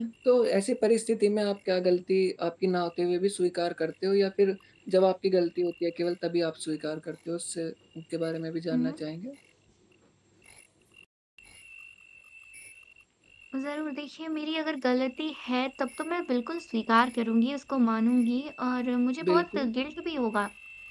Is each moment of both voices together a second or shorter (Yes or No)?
Yes